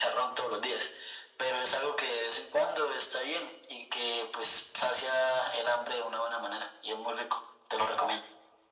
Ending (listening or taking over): taking over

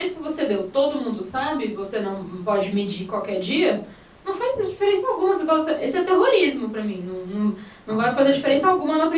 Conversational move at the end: taking over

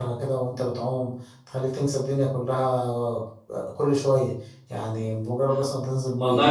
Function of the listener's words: taking over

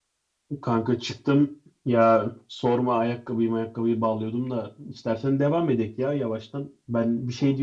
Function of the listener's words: listening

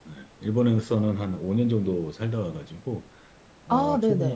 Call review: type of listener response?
listening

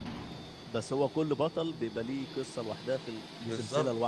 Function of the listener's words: taking over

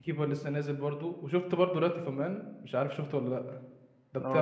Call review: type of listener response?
taking over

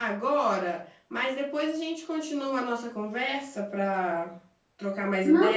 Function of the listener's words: taking over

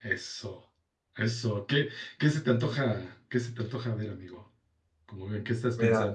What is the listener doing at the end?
taking over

